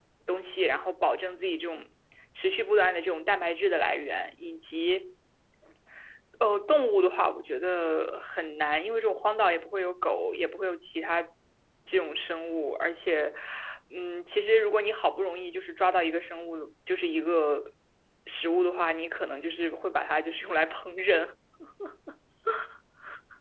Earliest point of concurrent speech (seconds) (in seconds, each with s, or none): none